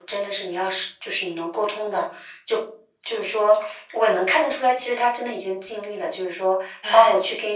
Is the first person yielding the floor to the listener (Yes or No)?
No